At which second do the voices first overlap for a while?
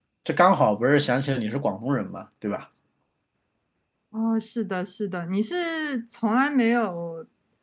none

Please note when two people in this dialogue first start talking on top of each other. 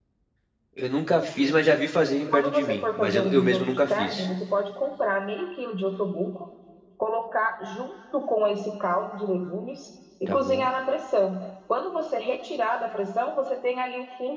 2.3 s

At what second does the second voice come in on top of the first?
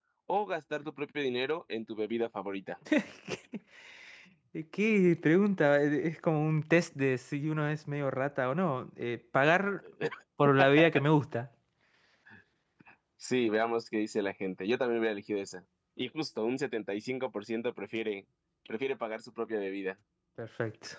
none

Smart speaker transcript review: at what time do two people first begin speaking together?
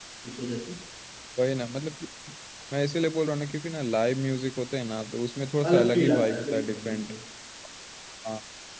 5.6 s

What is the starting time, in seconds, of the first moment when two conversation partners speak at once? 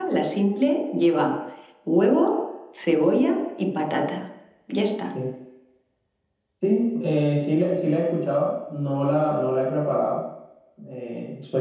none

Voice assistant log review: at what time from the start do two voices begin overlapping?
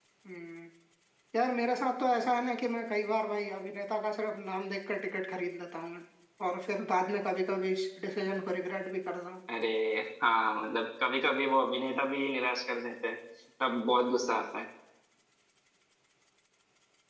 none

